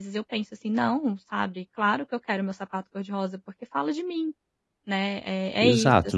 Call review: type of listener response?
taking over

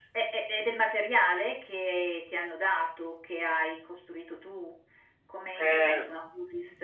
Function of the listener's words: listening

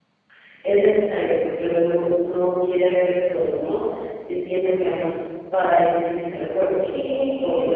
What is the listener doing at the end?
taking over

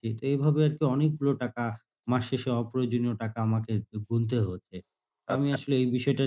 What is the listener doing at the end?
listening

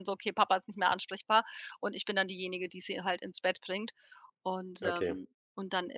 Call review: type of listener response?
listening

